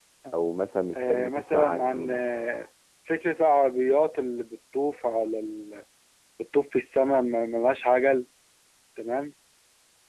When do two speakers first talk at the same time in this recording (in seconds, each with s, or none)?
1.0 s